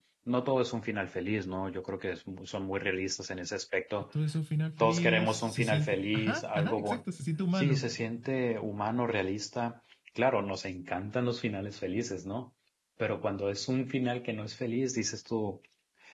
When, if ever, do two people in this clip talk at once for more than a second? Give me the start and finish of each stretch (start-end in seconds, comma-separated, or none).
4.8-7.0